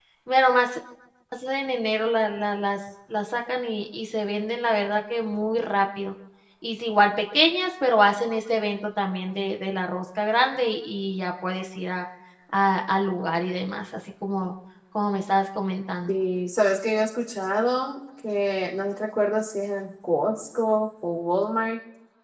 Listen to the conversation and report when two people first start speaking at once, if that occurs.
none

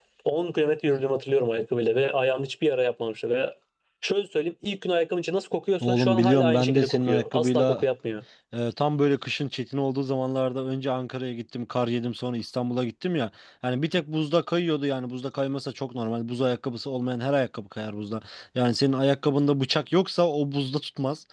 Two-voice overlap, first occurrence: 5.8 s

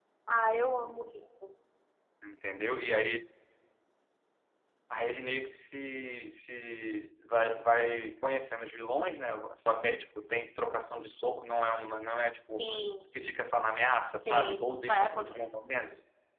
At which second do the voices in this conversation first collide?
14.3 s

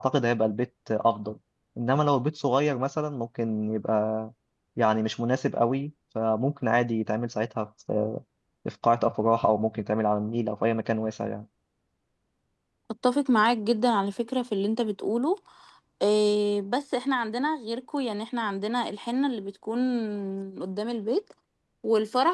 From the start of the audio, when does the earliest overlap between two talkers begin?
none

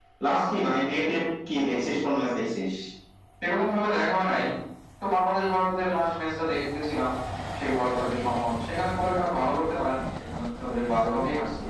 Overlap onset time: none

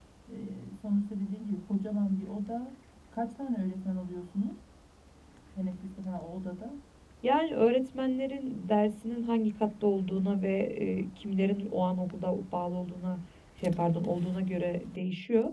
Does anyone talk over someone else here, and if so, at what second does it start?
none

